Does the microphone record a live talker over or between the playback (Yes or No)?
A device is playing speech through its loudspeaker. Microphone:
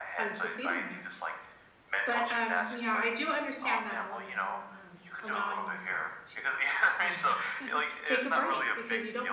Yes